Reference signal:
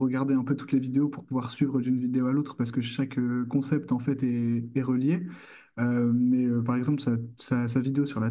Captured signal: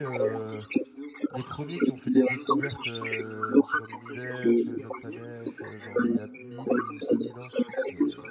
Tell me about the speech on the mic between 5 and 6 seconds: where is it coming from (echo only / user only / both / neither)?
both